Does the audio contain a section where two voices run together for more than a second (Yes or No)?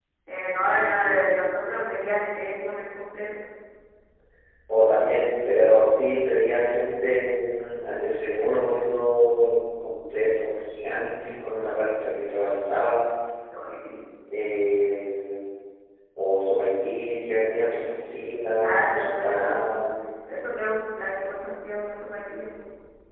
Yes